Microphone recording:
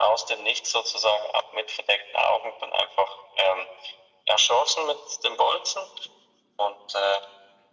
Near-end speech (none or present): none